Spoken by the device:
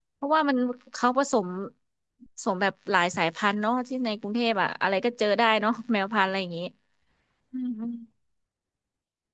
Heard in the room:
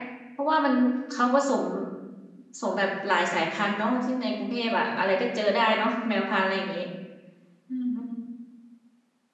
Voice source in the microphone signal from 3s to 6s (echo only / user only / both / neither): echo only